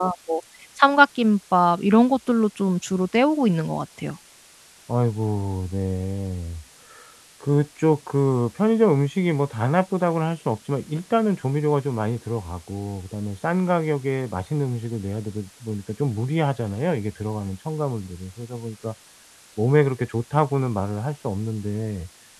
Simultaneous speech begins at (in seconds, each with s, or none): none